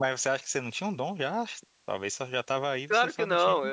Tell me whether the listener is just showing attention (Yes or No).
No